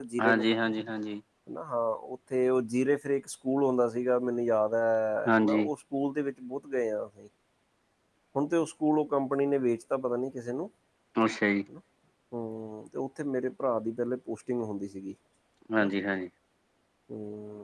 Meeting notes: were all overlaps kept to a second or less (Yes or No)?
Yes